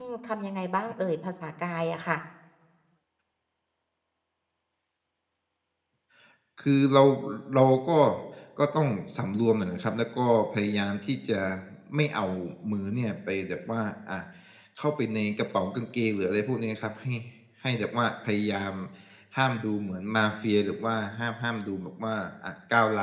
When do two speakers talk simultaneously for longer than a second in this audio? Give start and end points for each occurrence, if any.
none

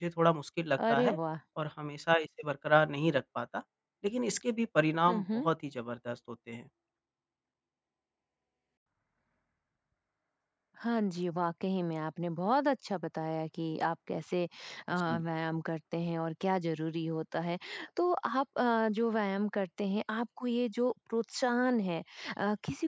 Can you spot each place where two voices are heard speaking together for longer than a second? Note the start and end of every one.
none

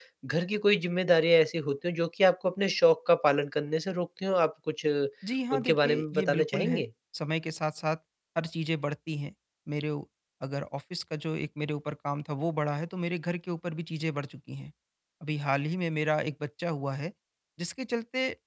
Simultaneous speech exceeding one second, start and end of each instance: 5.5-6.8

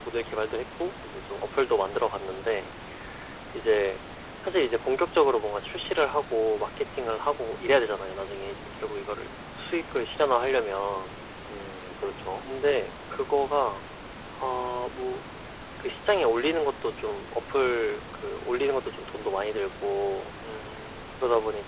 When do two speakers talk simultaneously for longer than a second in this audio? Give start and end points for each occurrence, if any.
none

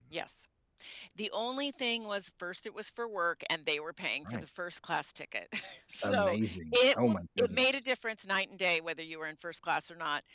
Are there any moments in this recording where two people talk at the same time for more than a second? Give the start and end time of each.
6.0-7.8

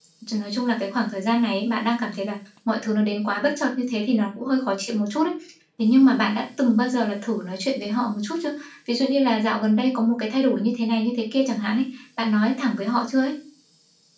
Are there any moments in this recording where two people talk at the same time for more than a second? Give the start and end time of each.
none

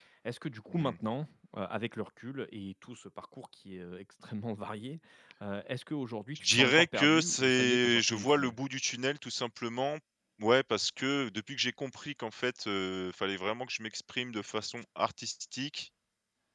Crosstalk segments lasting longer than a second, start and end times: 6.3-8.6

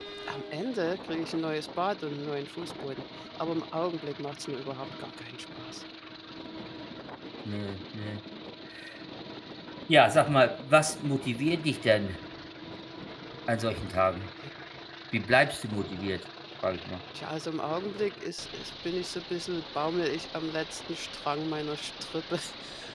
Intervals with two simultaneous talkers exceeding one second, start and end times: none

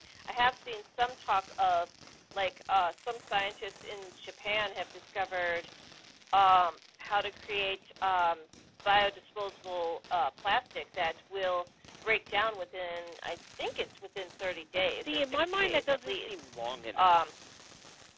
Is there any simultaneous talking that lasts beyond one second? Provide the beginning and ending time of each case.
14.8-16.5

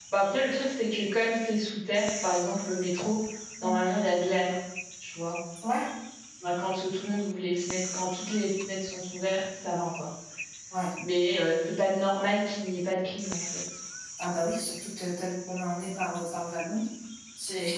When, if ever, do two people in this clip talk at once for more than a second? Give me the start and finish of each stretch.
none

